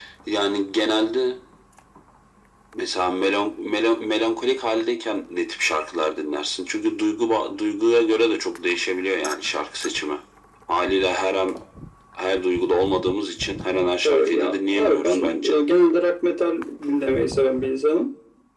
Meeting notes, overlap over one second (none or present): present